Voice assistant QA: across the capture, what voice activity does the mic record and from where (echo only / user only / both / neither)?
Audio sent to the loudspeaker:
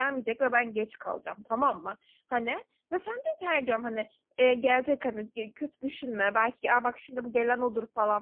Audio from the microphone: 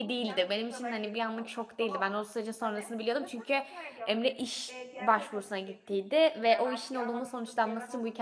both